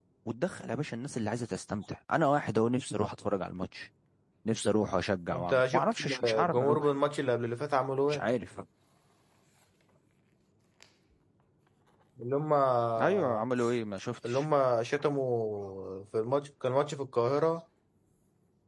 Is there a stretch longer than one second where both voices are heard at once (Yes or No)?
Yes